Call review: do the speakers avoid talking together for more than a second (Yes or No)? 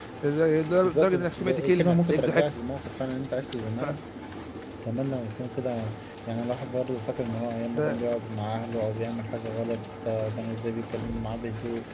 No